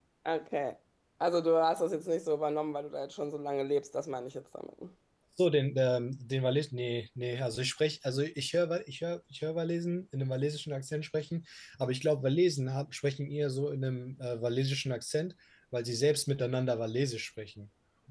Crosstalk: none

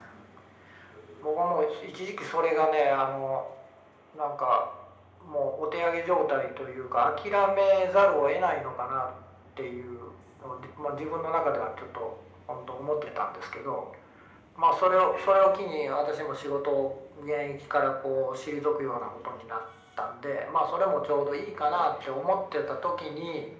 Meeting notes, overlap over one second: none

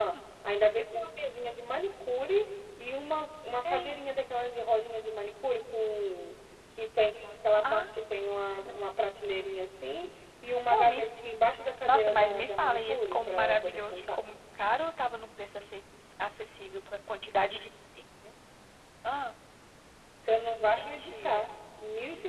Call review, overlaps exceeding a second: present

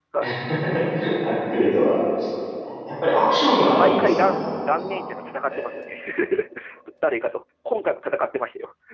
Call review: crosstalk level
present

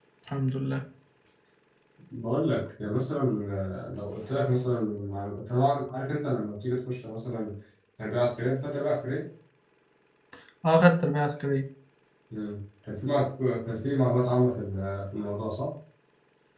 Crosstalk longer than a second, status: none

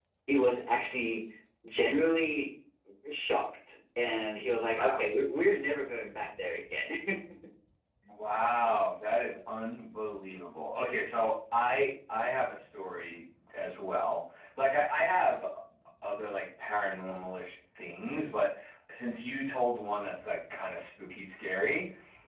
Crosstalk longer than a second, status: none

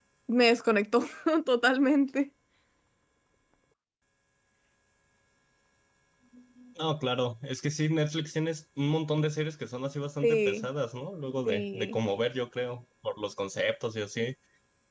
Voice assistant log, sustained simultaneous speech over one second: none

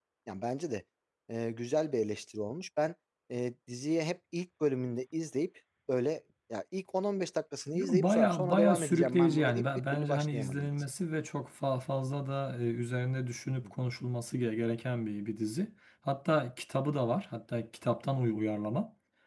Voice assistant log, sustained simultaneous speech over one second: present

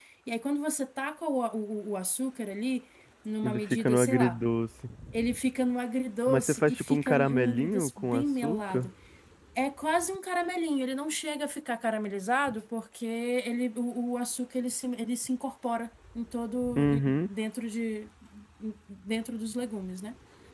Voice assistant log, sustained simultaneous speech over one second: present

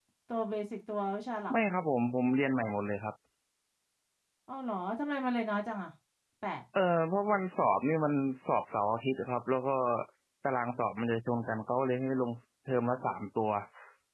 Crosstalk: none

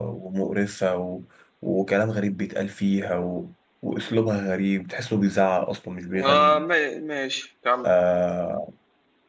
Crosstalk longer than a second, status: none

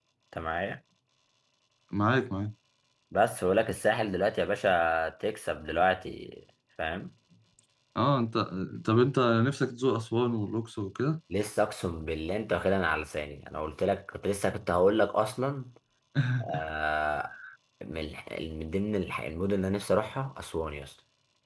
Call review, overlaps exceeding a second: none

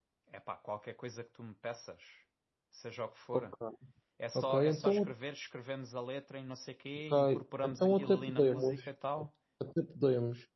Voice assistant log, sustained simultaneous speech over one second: present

